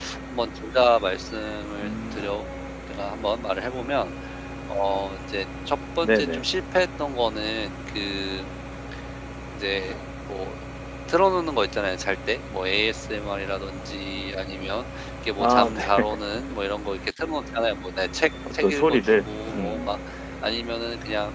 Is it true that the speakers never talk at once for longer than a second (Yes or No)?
No